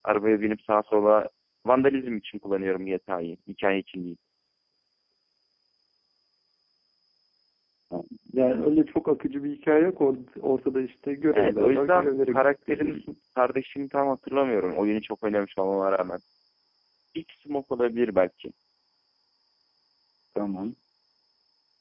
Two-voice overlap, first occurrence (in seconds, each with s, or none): 11.3 s